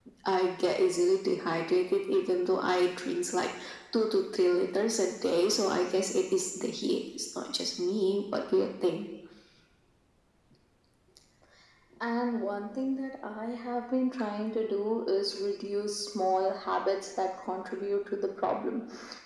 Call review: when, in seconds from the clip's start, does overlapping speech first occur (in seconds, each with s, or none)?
none